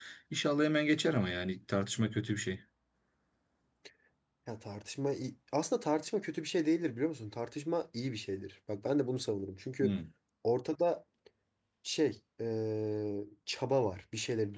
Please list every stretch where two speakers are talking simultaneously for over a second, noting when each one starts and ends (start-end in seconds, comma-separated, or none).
none